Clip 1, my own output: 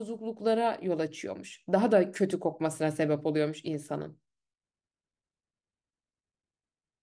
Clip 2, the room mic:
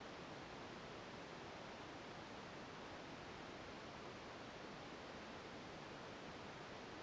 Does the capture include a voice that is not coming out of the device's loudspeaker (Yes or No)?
No